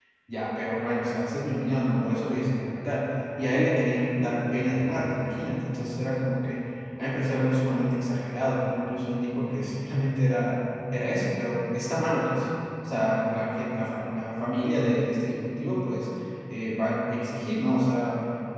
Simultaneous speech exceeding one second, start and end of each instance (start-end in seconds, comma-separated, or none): none